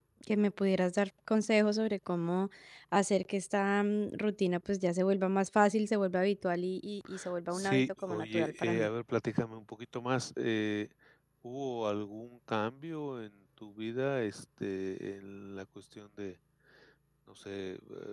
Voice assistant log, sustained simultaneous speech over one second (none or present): present